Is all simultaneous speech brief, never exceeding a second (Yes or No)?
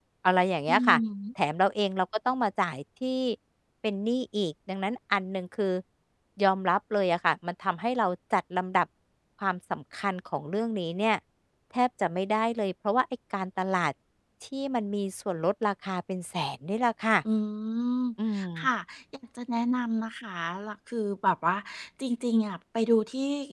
Yes